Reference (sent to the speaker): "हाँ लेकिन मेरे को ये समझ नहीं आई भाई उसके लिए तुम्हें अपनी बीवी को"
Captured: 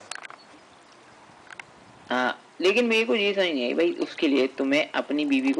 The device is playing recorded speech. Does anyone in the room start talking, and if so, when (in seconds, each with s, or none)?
none